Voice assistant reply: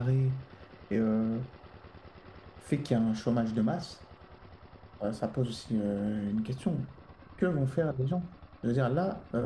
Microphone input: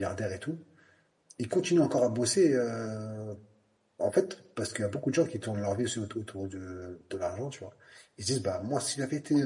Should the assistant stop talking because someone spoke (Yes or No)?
Yes